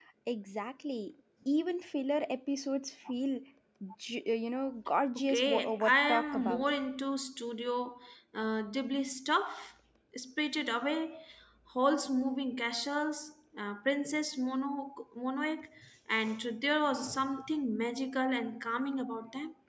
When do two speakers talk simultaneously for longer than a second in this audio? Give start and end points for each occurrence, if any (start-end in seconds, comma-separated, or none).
5.2-6.6